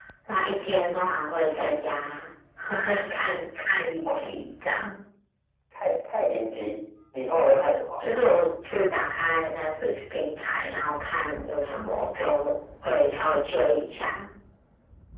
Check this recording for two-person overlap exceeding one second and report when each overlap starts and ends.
none

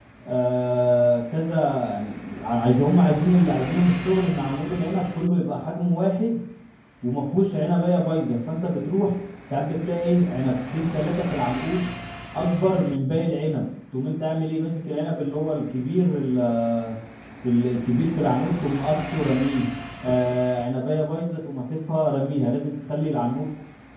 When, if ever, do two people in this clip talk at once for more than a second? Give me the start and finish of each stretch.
none

